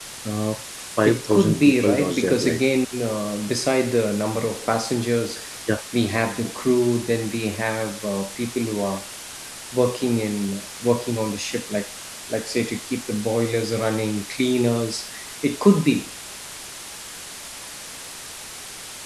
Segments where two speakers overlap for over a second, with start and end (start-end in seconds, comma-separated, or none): 1.1-2.6